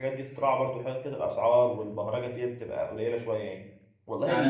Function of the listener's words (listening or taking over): taking over